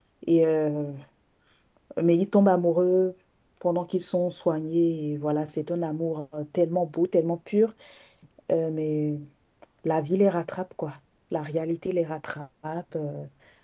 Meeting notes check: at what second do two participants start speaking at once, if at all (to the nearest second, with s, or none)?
none